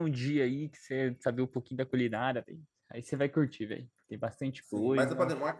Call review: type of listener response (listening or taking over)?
taking over